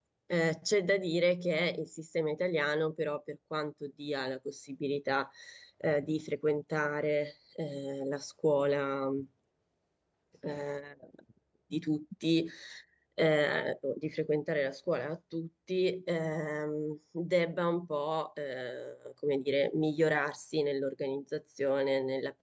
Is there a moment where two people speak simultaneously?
No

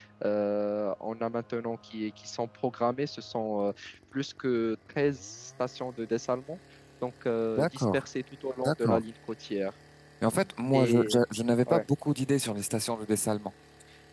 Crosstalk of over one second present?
No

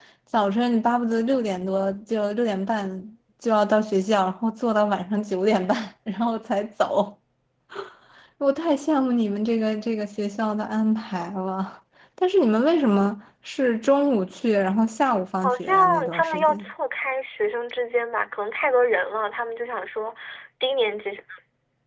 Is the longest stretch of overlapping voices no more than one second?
No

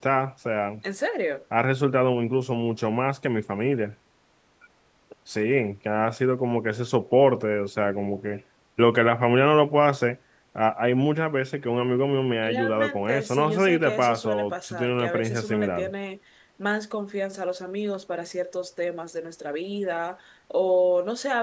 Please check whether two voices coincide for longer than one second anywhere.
Yes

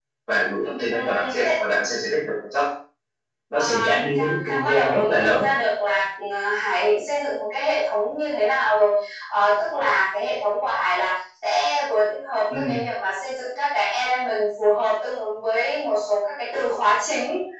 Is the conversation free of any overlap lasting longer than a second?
No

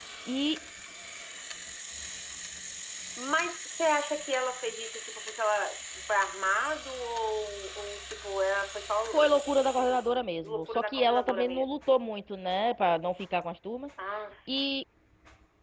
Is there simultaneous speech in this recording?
Yes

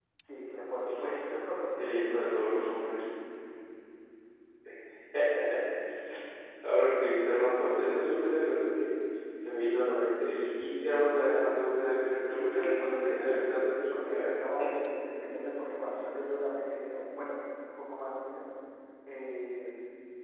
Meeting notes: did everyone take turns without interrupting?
No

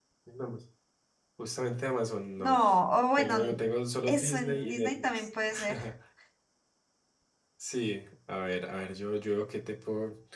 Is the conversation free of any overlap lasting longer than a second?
No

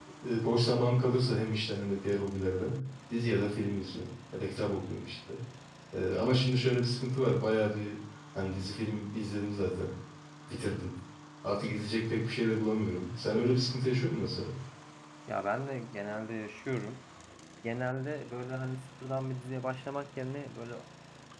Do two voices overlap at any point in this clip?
No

